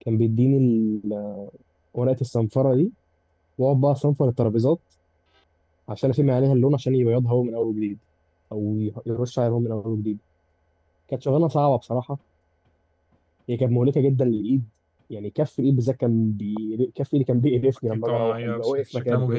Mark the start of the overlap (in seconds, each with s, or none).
17.9 s